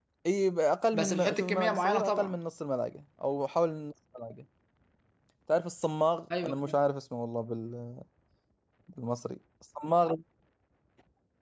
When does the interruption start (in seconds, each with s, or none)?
0.9 s